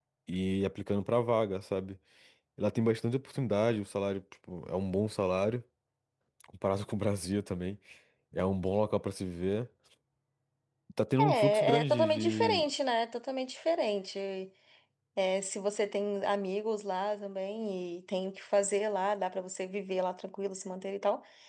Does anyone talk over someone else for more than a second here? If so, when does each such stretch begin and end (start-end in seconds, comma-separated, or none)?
11.2-12.7